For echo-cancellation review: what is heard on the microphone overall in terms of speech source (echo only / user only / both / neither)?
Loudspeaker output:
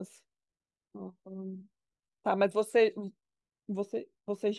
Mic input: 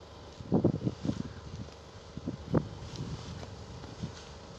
neither